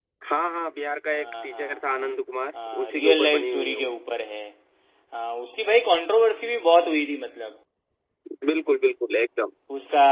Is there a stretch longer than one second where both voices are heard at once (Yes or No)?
Yes